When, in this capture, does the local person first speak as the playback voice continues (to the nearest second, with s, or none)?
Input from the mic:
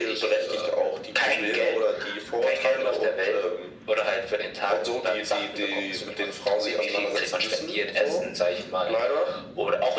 none